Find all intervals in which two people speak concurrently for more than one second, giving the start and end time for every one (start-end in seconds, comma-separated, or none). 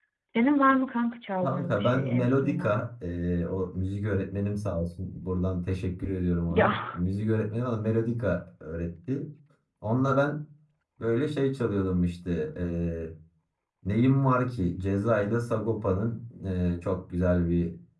1.4-2.7